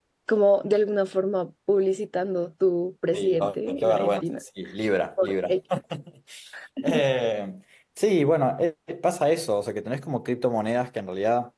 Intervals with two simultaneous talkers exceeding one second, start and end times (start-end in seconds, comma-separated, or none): 3.1-4.4